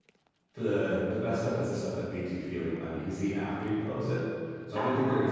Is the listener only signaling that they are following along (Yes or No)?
Yes